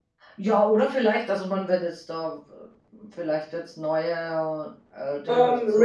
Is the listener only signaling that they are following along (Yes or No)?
No